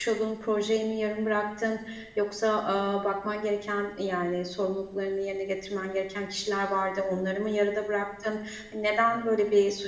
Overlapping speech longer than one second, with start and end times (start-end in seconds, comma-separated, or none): none